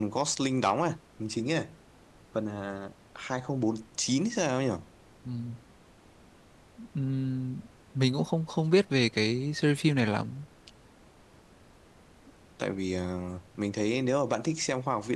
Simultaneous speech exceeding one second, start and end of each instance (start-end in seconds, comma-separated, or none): none